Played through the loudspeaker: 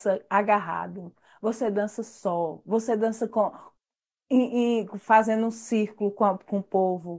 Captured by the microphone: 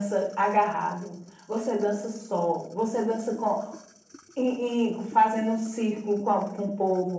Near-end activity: none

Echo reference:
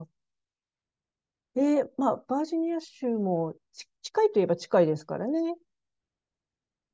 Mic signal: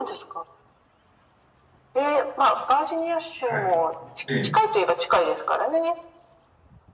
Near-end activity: present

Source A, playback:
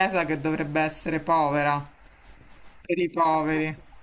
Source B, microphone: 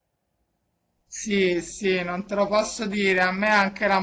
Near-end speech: present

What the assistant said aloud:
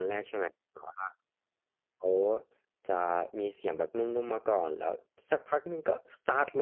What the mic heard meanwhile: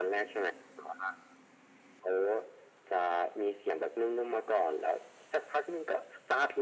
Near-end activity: none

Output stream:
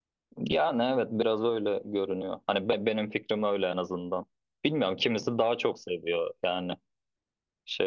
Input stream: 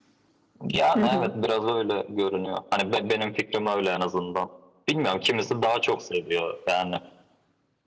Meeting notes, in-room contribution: present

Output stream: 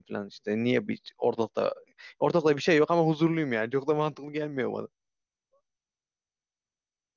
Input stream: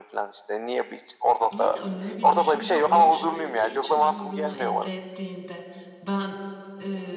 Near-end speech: present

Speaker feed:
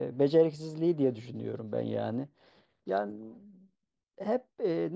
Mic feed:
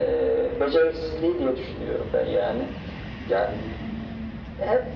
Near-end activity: none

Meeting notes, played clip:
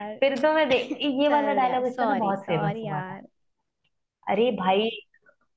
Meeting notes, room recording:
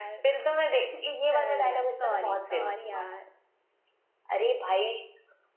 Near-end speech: none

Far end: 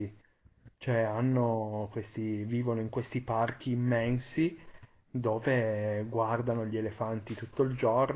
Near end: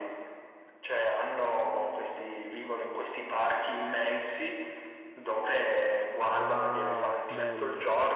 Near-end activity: present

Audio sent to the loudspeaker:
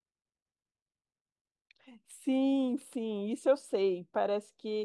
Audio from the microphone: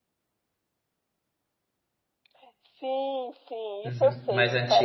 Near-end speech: present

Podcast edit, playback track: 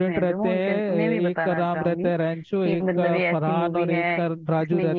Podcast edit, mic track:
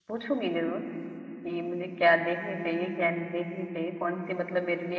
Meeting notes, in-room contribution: present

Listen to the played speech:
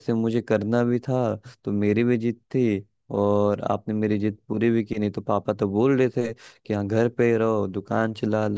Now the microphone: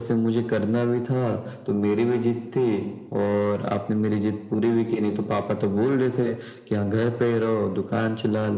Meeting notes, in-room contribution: none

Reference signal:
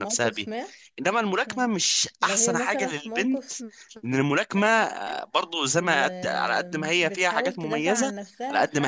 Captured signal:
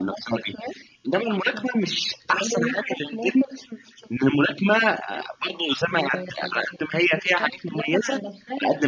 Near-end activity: none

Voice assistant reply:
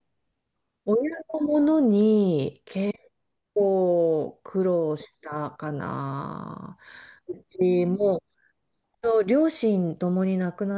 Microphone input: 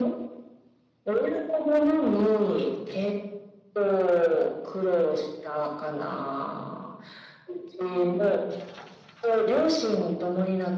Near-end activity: none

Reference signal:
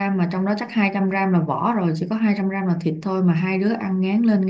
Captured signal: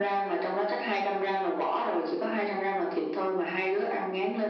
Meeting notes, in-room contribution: none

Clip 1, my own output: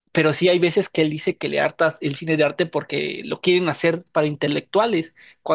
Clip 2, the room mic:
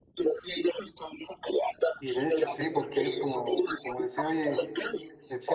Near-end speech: present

